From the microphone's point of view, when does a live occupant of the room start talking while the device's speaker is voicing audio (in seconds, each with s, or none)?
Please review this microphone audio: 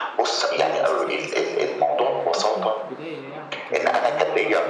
0.6 s